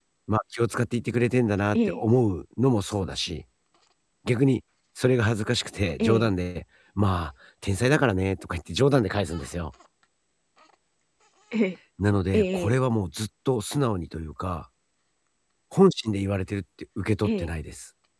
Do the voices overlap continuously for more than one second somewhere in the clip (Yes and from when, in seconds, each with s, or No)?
No